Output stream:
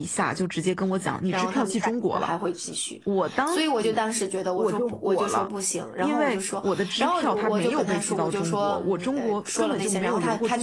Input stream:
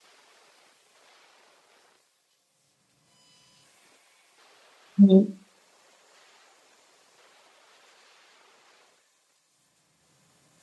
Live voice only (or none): 嗯